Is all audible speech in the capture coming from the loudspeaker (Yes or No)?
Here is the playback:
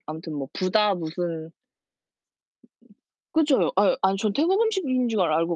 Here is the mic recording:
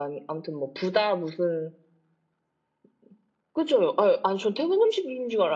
Yes